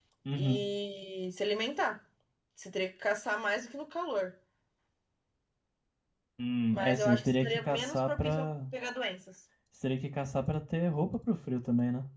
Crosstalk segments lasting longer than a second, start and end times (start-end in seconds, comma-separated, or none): 6.7-8.4